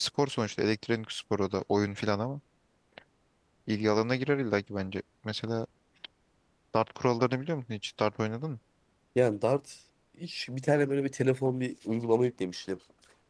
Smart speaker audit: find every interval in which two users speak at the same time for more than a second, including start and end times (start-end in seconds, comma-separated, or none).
none